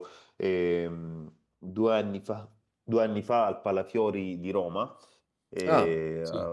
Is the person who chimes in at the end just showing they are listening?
Yes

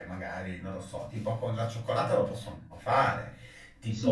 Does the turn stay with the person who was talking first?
Yes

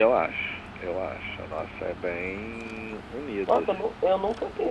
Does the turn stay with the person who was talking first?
No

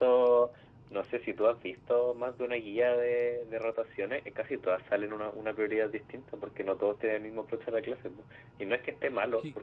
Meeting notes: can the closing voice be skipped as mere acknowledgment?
Yes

